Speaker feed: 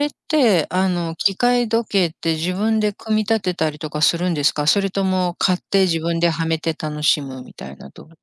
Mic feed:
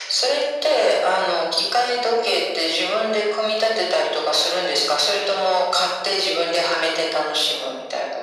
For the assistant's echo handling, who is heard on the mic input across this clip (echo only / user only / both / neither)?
echo only